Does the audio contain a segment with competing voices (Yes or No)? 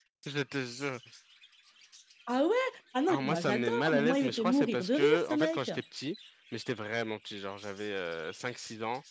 Yes